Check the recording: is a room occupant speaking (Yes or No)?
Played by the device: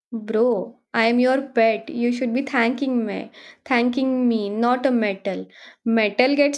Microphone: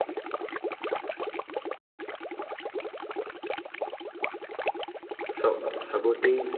Yes